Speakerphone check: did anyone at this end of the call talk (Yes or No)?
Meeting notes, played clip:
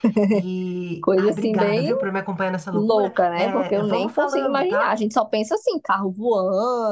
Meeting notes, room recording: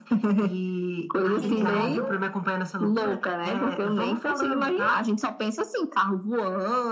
Yes